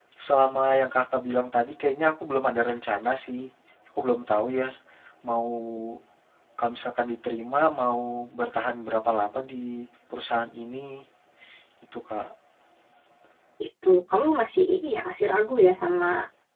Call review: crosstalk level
none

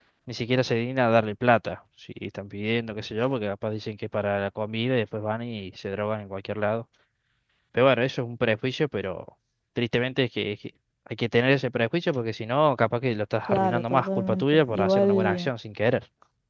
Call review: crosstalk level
present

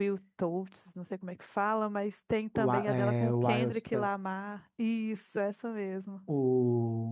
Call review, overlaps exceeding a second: present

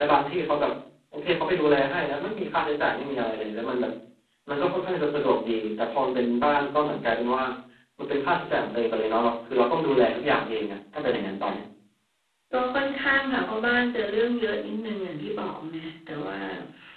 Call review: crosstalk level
none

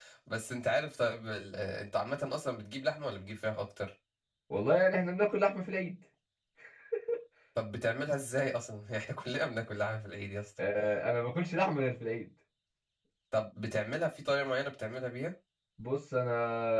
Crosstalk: none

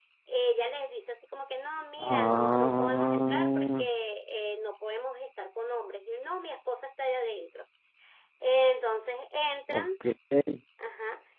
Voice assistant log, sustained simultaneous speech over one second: present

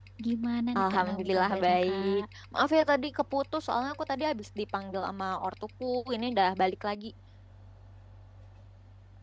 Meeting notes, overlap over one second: present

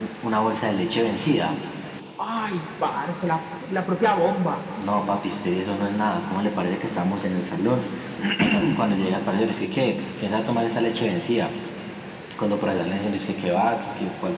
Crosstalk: none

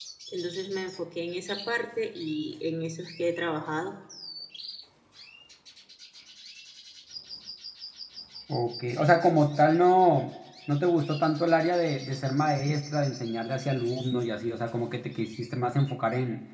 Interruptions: none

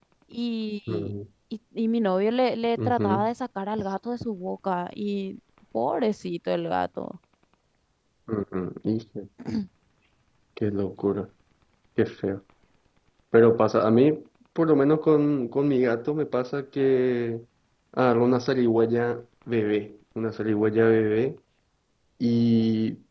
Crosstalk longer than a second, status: none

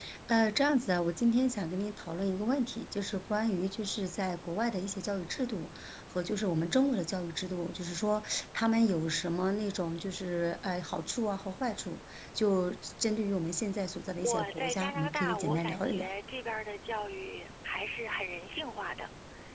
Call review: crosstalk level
present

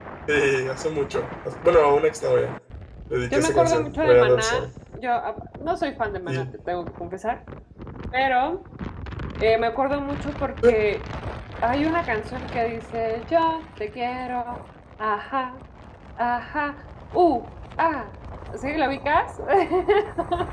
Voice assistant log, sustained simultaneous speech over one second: present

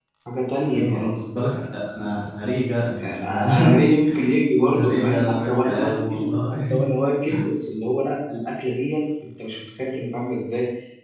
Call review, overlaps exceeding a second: present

